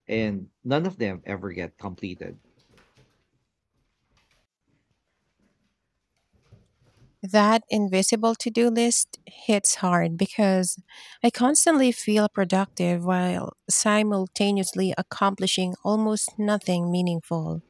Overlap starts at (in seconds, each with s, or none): none